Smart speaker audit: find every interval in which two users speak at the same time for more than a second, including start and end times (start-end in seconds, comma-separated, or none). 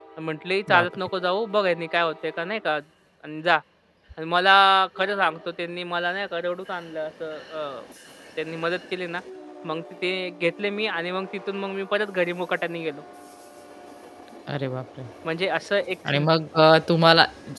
none